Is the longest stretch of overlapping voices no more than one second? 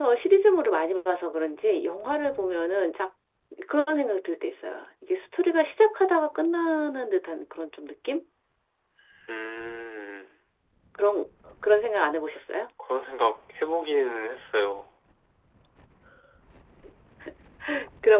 Yes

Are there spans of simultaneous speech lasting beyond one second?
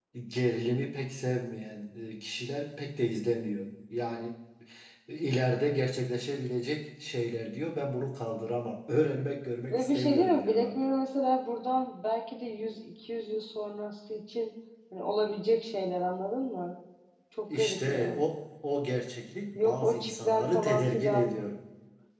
Yes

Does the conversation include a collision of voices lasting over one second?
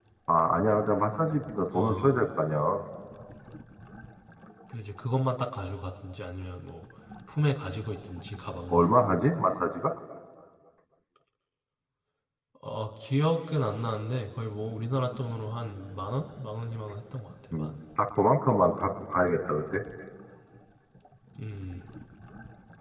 No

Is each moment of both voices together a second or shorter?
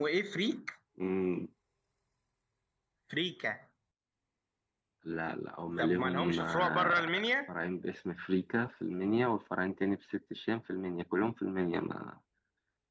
No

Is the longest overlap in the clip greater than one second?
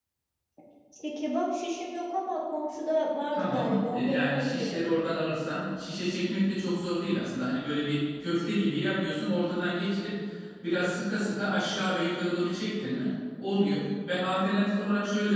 Yes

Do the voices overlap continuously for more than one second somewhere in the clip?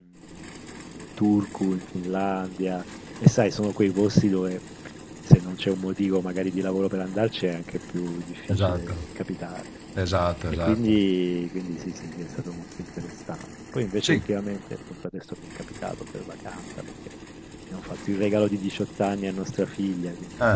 No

